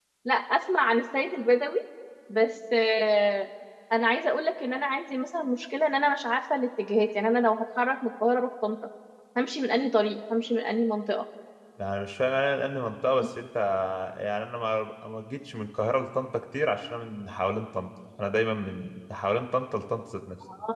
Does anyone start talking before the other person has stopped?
No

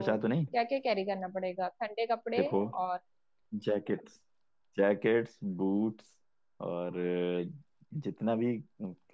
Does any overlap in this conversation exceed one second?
No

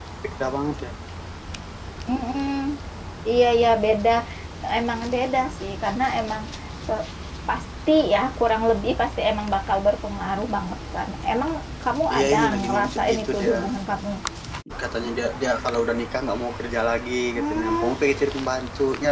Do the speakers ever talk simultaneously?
Yes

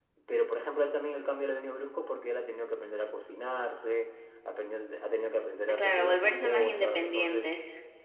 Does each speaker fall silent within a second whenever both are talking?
No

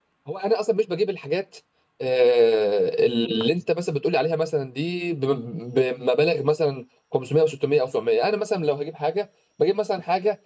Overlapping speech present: No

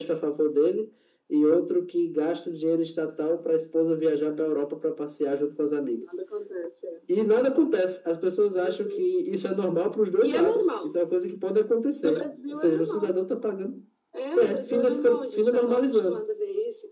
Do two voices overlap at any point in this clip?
Yes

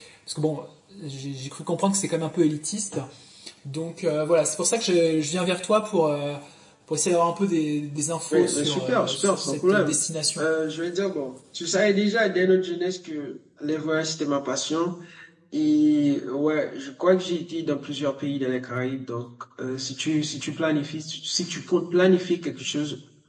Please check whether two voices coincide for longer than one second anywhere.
Yes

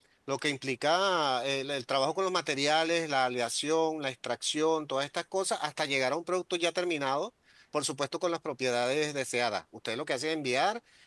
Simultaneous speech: No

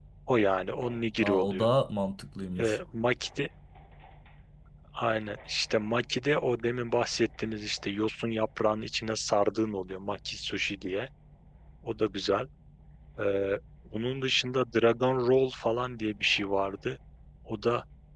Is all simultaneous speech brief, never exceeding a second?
Yes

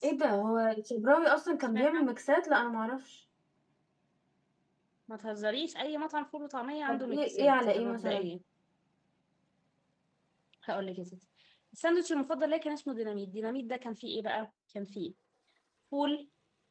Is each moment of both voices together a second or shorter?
No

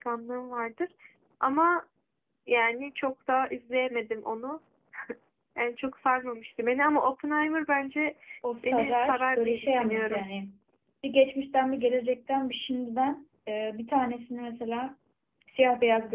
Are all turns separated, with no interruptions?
No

